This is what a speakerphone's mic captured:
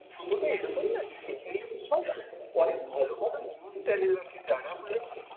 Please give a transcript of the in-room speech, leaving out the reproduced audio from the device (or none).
চ্যানেলে দেখতে পাই না তাই না